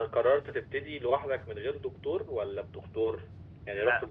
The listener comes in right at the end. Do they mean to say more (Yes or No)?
No